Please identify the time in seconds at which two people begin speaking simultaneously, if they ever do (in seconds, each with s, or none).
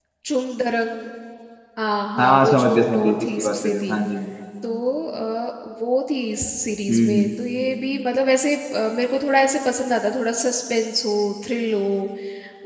2.2 s